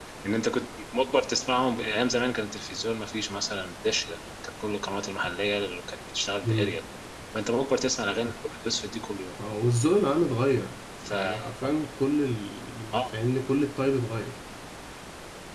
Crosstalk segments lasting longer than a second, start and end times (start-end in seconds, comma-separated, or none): none